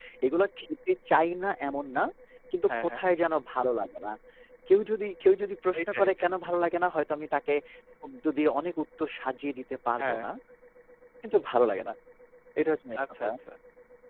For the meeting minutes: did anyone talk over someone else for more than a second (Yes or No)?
No